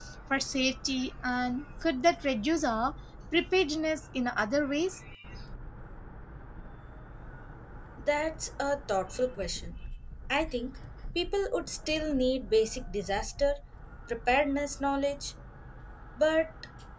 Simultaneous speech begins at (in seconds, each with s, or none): none